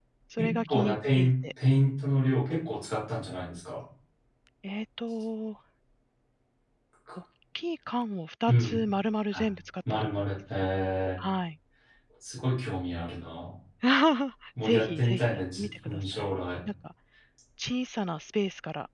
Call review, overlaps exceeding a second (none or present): present